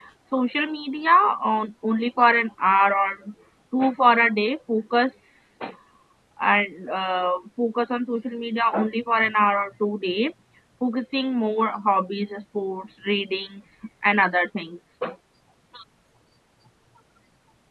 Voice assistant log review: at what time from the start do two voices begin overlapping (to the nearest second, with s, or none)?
none